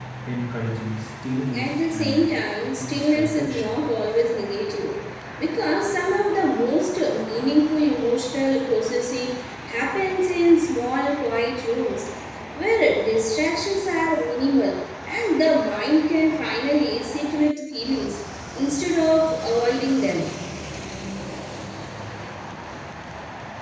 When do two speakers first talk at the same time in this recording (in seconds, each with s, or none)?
1.5 s